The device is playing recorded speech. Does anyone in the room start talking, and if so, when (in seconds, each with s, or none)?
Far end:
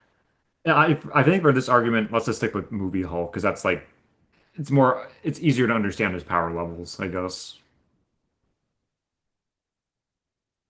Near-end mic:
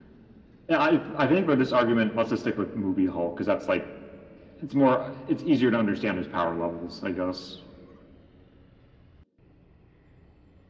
none